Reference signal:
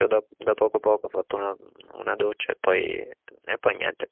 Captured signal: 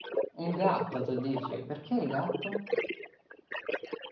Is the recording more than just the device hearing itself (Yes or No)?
Yes